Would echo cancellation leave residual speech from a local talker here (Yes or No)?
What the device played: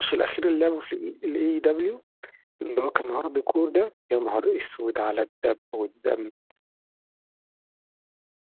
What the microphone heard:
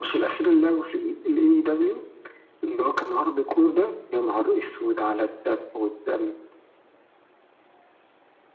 No